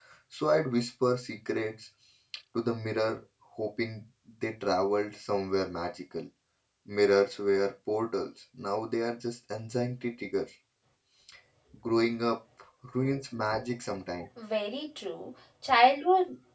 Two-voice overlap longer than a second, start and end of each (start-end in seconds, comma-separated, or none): none